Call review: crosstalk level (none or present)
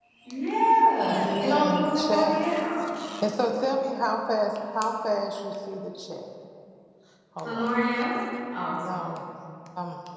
present